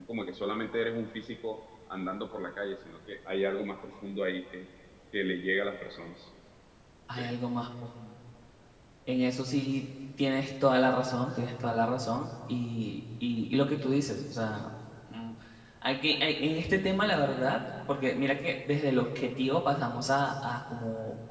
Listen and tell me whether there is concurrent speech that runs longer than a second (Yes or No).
No